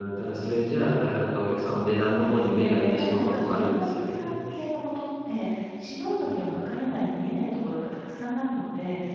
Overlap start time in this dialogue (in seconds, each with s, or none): 2.0 s